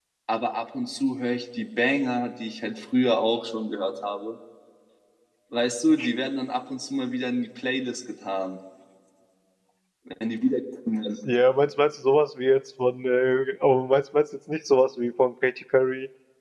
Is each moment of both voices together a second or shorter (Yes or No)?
Yes